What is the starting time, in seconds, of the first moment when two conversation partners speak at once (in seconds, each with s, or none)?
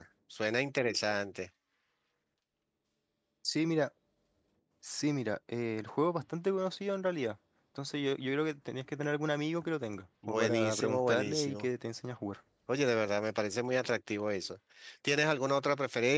10.2 s